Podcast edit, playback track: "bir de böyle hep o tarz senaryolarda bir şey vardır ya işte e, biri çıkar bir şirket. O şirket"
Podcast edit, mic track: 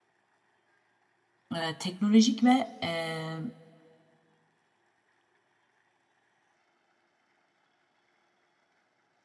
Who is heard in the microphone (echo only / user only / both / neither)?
user only